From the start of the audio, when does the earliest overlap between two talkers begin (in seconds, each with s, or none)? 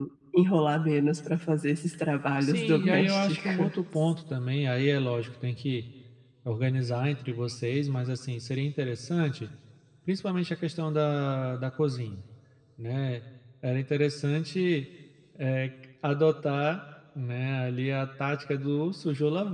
2.4 s